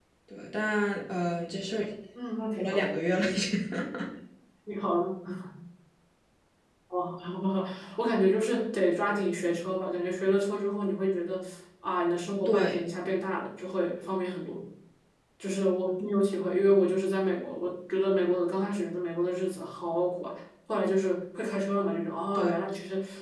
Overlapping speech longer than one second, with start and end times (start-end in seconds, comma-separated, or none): none